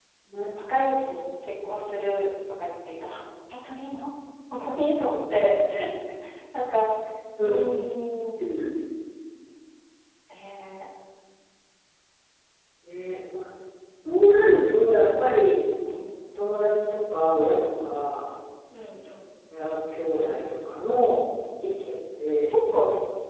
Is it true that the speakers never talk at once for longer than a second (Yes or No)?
Yes